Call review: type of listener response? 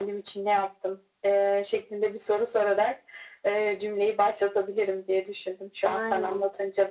listening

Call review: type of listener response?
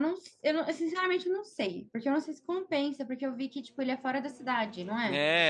taking over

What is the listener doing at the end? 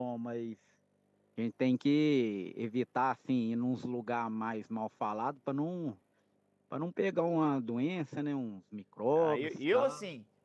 taking over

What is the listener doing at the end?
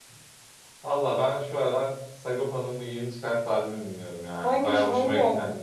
taking over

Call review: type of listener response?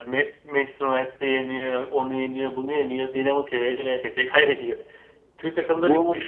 listening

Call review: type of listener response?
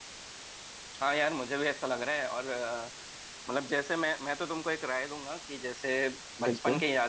listening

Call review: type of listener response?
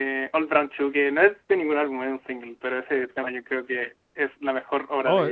taking over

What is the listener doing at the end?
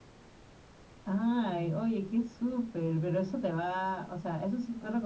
listening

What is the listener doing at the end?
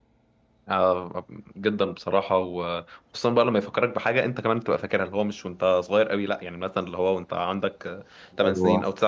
listening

